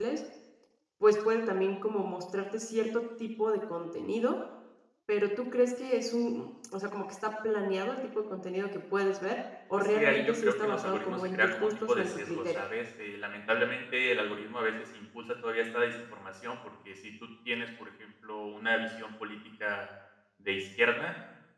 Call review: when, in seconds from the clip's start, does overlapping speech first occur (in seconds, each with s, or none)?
9.8 s